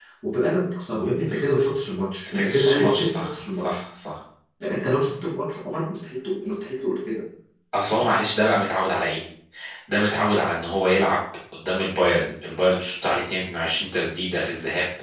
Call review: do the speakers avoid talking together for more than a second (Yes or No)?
No